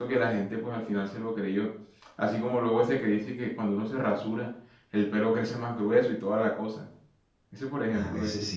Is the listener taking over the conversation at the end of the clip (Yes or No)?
Yes